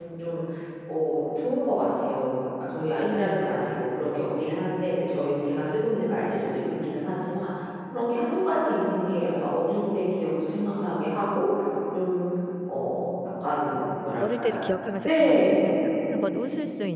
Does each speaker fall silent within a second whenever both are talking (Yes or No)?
Yes